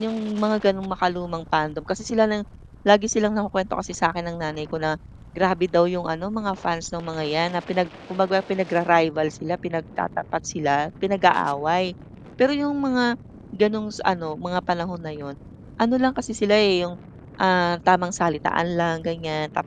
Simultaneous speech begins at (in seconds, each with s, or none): none